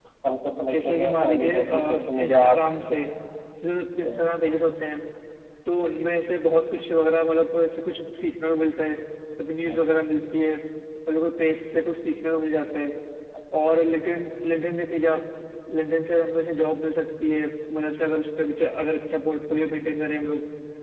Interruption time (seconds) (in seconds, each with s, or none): 0.7 s